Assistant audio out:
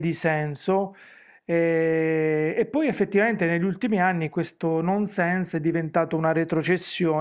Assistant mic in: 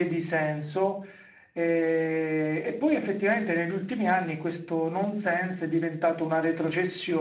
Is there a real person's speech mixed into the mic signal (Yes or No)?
No